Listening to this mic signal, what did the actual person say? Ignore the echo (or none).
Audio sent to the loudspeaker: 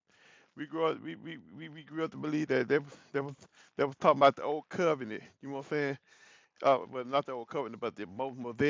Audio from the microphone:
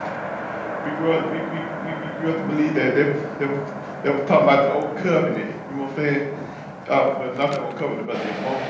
none